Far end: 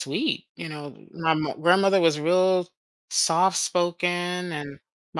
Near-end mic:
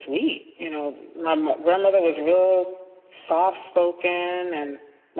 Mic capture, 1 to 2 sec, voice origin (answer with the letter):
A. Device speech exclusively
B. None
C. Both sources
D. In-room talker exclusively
A